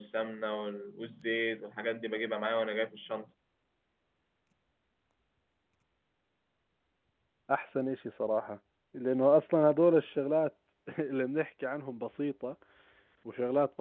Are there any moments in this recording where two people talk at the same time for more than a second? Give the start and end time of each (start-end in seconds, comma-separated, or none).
none